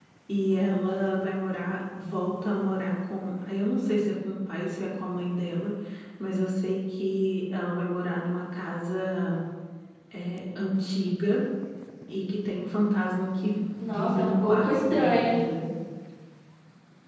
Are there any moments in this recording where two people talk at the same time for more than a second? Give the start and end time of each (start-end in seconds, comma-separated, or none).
13.8-15.4